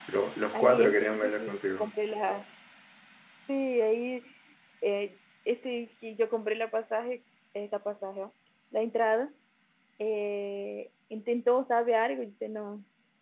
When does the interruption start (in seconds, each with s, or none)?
0.5 s